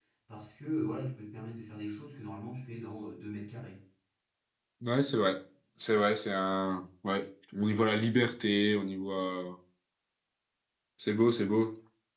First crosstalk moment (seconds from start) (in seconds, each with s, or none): none